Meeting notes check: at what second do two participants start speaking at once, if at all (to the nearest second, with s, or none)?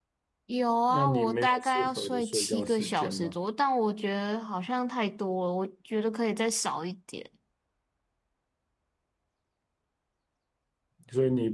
1 s